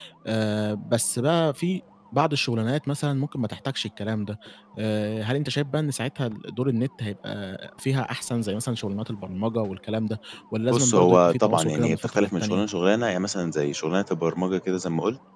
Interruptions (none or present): present